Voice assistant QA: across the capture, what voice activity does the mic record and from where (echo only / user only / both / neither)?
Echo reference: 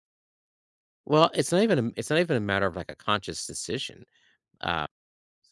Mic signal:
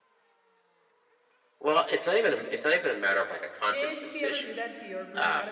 both